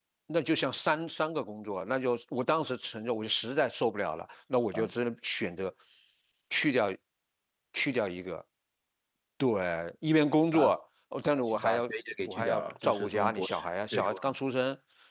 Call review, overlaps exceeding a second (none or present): present